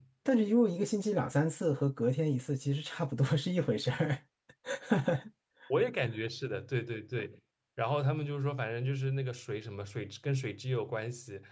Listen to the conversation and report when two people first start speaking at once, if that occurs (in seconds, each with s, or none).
none